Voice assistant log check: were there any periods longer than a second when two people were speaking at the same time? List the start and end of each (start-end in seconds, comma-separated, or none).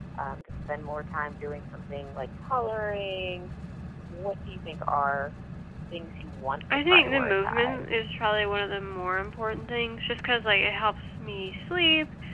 6.7-8.0